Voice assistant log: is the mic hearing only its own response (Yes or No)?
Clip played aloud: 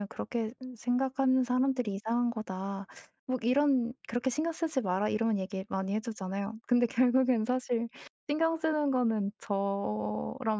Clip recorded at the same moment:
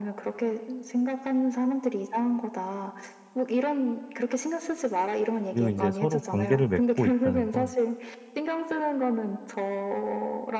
No